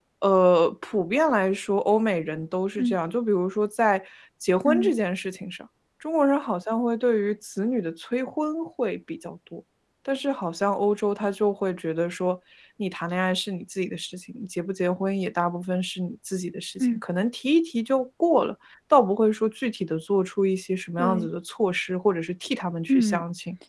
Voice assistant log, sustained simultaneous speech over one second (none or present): none